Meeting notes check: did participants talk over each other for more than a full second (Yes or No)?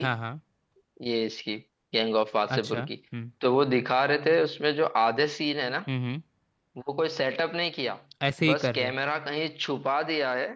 No